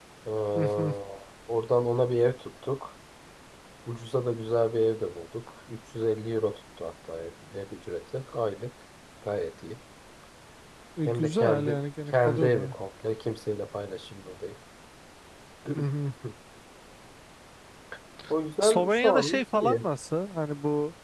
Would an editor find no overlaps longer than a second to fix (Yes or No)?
No